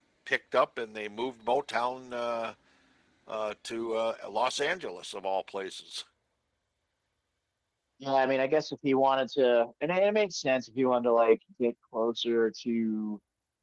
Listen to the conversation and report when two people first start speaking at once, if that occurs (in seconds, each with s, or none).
none